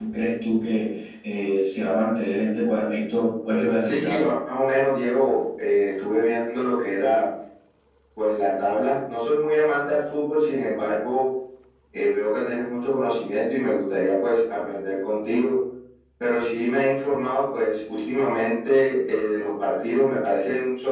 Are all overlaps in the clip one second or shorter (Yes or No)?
Yes